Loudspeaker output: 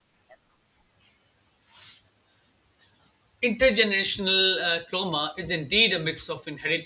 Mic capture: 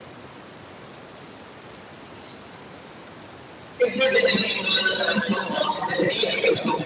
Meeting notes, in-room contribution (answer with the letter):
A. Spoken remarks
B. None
B